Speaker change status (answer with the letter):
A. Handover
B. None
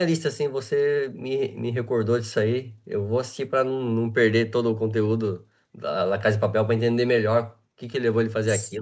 A